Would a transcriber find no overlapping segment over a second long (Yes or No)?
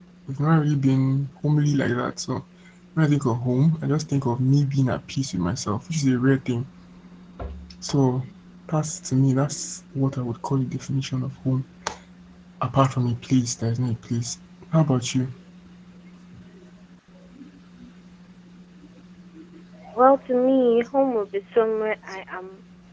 Yes